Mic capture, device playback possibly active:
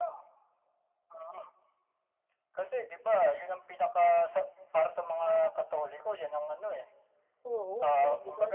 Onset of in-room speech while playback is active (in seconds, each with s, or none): 7.4 s